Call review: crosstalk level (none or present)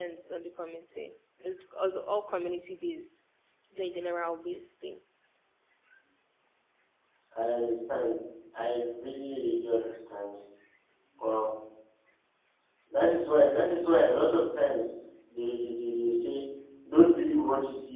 none